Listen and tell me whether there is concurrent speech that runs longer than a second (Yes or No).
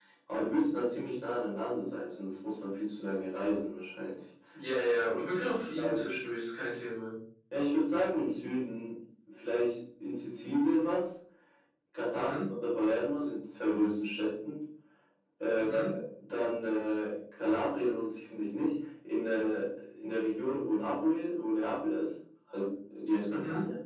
No